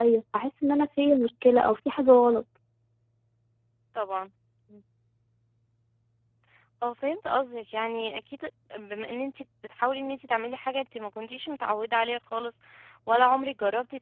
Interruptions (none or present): none